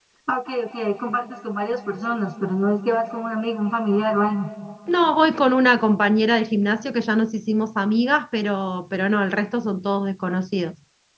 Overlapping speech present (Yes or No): No